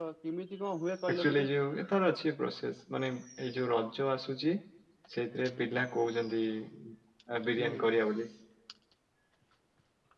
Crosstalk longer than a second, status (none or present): none